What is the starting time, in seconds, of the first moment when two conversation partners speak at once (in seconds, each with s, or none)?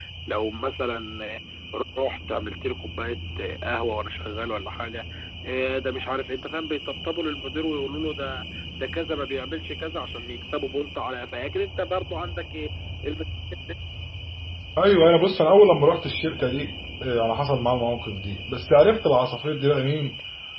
none